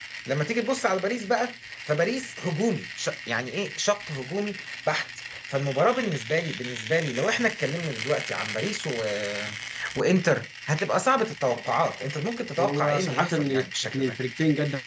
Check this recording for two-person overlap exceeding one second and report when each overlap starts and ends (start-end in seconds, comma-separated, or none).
12.6-14.2